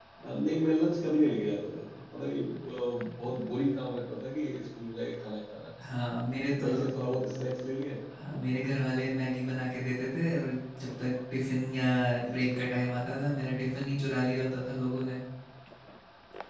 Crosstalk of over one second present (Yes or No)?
No